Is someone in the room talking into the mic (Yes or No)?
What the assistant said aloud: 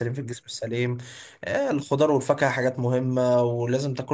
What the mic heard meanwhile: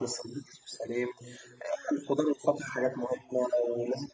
No